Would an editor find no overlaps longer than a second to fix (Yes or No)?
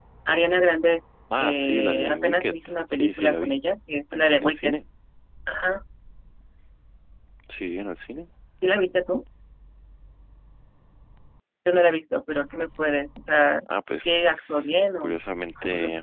No